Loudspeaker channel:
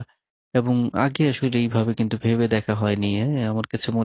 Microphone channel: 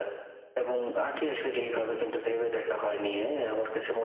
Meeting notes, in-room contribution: none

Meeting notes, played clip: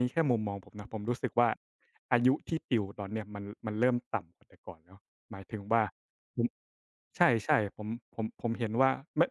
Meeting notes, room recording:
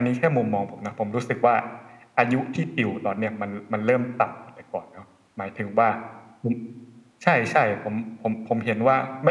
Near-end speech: none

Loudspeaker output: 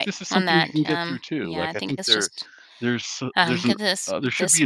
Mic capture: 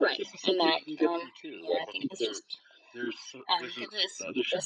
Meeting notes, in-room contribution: none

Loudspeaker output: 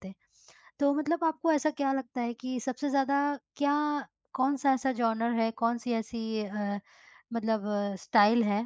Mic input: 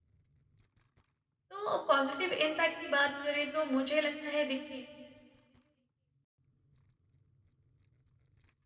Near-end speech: present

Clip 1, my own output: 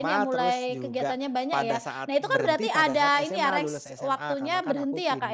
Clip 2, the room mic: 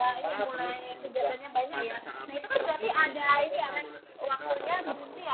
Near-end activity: none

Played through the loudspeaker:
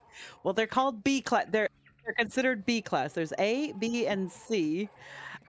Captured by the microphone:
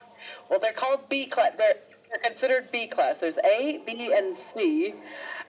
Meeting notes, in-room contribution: none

